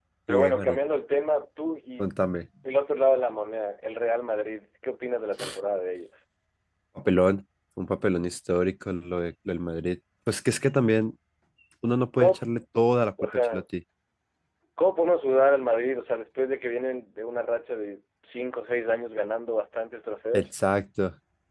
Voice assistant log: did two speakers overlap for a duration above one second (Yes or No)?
No